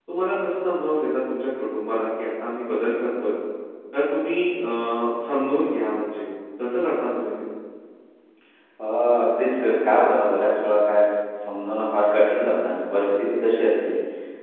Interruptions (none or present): none